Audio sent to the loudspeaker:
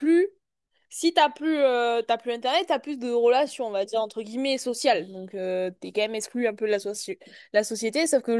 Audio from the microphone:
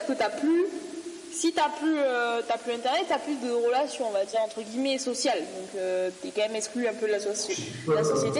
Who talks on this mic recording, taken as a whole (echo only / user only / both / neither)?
both